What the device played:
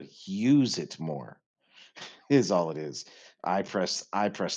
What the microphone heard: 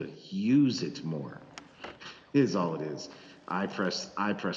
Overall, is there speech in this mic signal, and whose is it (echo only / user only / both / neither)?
echo only